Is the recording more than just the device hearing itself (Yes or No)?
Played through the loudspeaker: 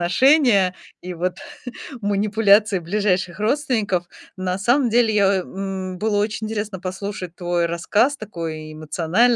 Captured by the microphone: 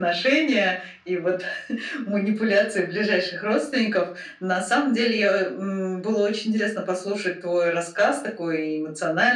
No